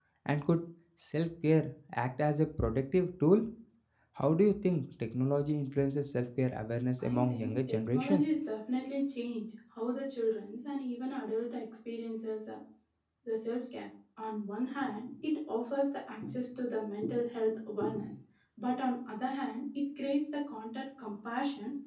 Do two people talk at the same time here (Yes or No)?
Yes